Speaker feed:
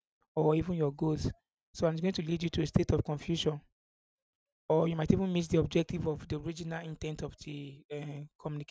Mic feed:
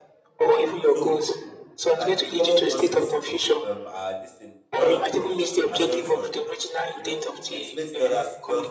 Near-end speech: present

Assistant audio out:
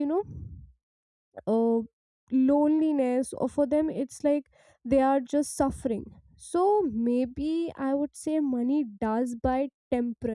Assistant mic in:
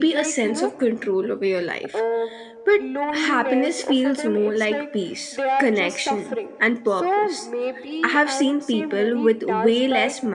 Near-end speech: present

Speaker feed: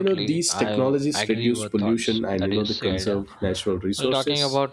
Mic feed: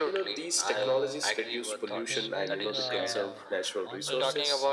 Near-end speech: present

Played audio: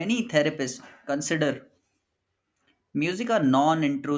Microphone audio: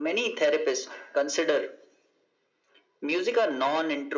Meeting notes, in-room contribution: none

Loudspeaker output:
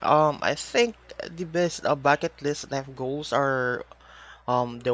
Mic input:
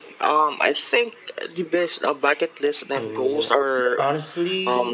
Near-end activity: present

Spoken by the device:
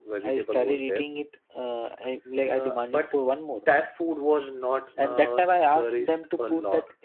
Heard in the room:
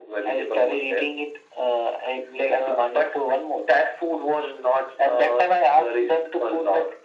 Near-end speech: none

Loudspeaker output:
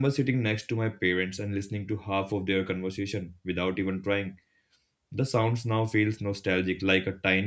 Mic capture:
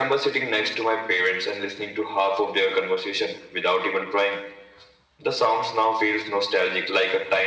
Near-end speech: none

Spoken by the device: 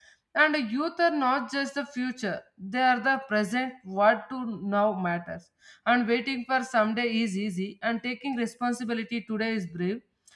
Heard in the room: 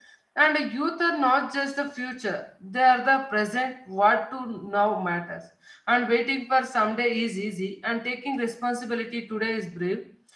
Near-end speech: none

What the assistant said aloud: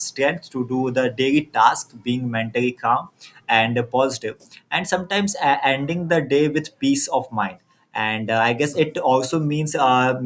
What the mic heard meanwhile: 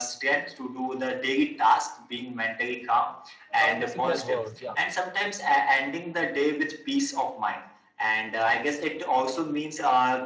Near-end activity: present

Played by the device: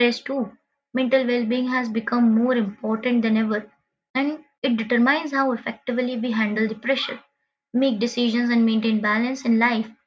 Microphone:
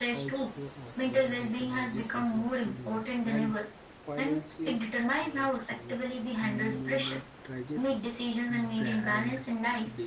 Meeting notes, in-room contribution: present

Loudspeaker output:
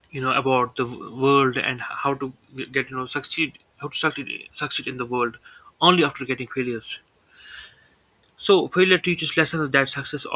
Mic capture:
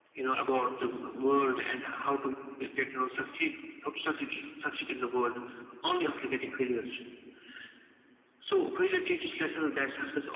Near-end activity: none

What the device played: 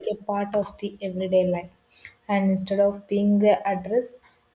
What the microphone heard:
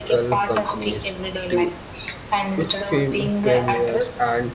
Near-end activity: present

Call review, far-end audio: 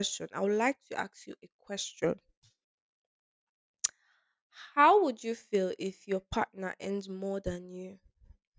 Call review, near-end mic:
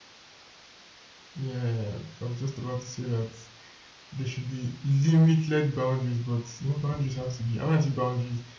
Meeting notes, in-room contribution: present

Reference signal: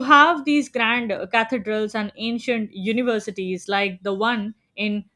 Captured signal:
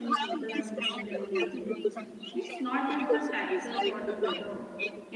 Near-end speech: present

